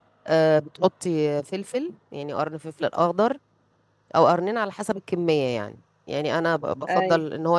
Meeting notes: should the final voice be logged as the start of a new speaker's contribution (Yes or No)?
No